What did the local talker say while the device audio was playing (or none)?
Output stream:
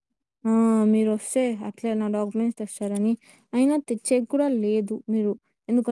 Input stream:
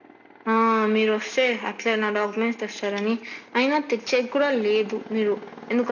none